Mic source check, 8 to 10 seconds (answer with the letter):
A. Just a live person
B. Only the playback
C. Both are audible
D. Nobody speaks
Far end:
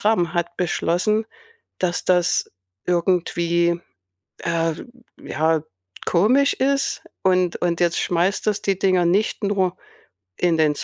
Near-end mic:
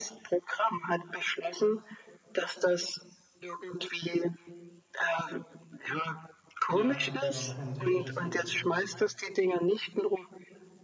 C